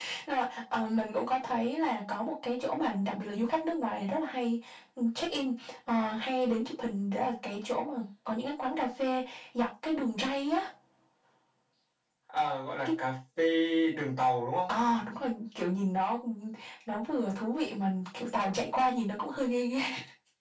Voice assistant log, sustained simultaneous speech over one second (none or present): none